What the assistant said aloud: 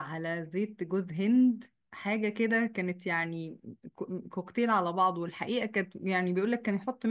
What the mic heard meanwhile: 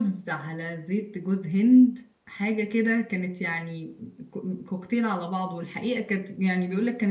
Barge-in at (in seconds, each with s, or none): none